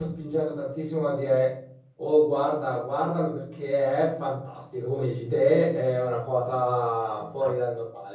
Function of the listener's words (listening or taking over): taking over